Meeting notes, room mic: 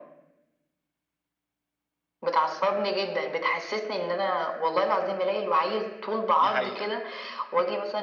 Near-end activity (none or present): present